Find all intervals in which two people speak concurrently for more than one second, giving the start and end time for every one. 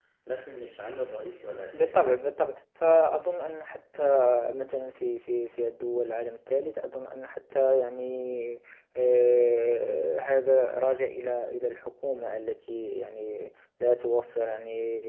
none

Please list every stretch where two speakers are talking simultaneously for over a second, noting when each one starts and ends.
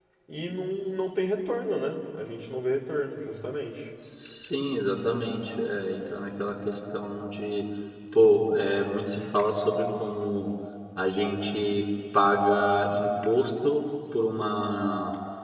none

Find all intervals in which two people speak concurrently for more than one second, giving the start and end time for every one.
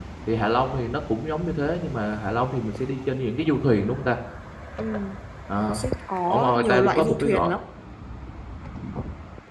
6.3-7.5

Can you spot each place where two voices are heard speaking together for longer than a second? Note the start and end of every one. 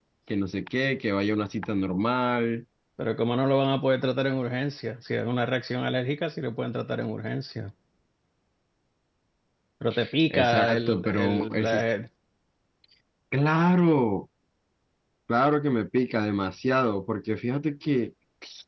10.3-11.8

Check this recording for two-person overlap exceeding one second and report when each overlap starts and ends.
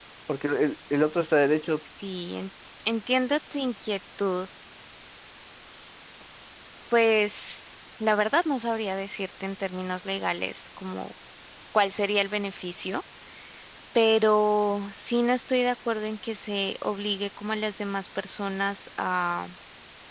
none

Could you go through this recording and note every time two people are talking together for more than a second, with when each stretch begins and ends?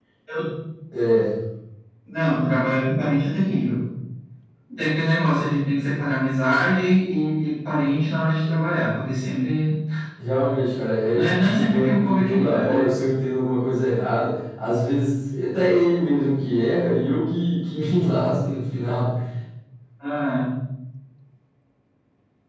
11.1-12.9

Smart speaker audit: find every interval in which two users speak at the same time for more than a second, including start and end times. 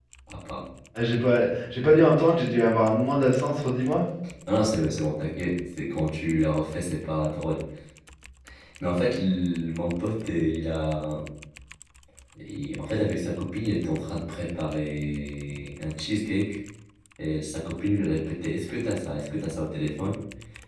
none

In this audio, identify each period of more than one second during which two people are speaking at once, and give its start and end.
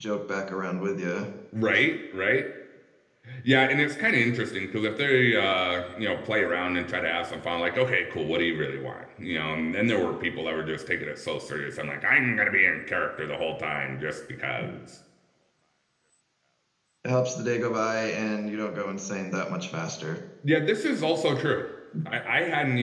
none

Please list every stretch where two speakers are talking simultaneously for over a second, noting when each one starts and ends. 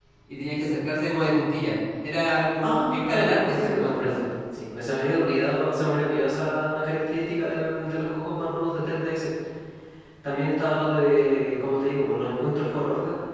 2.6-4.1

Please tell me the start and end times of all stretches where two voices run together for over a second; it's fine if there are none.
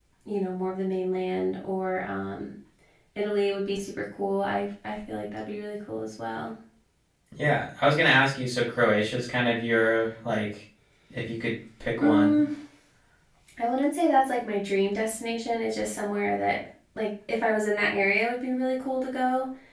none

